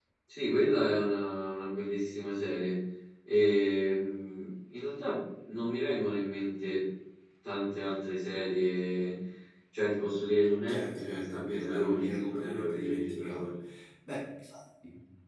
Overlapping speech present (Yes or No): Yes